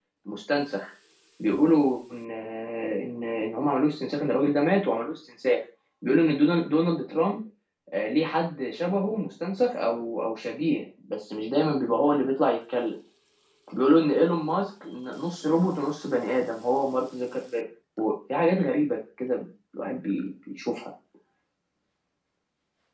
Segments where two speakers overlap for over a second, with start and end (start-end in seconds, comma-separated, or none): none